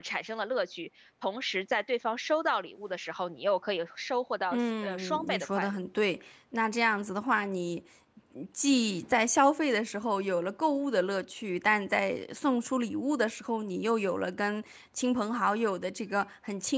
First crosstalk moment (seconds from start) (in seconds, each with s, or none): 4.5 s